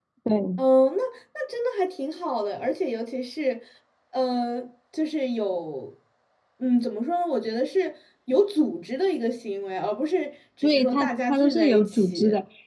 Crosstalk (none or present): present